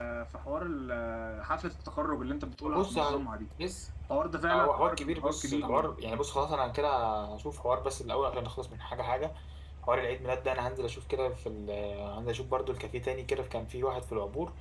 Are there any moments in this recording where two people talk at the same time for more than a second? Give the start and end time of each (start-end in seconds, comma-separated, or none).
4.5-5.9